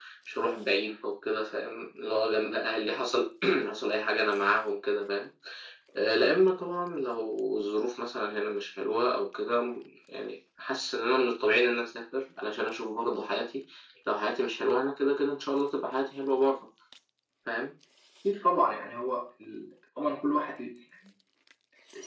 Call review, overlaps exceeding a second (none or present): none